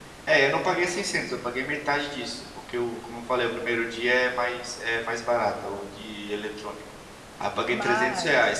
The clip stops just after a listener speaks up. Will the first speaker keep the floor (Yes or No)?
Yes